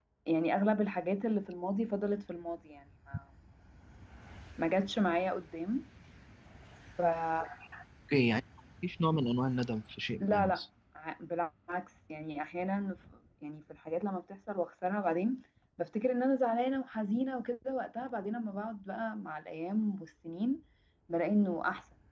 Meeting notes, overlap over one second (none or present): none